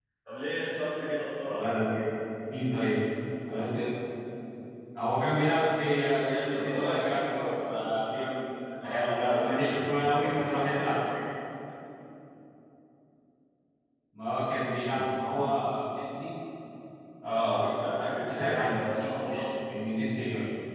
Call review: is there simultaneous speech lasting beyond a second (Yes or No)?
Yes